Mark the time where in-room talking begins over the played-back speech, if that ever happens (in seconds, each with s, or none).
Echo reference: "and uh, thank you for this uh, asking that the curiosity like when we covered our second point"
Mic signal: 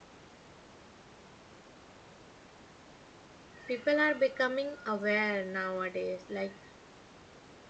3.7 s